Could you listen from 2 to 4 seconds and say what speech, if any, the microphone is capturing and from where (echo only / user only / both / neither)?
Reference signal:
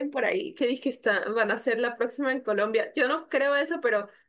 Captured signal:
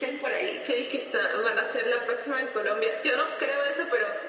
echo only